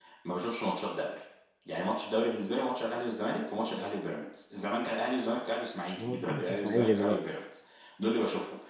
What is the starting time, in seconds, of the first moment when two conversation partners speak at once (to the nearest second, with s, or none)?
6 s